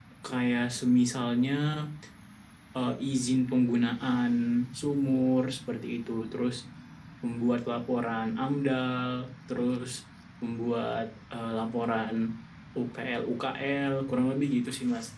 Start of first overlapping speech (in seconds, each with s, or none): none